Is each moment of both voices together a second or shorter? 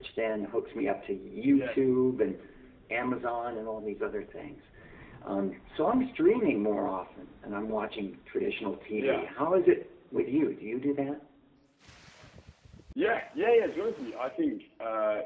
Yes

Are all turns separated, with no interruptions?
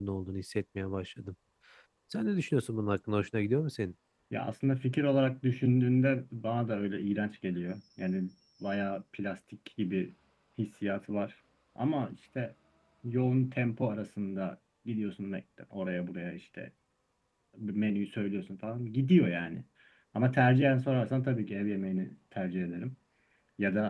Yes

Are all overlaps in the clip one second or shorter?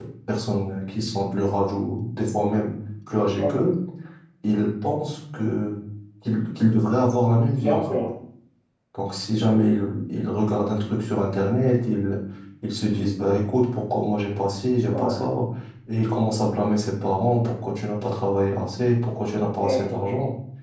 Yes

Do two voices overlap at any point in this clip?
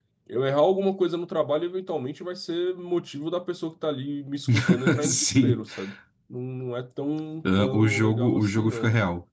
Yes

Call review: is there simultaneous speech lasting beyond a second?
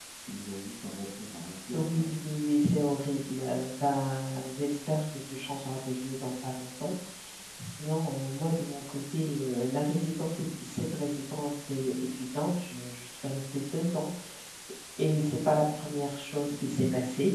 No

